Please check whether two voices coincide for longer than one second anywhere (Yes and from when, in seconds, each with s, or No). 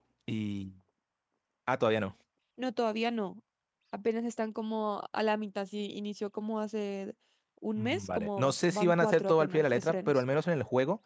Yes, from 7.8 s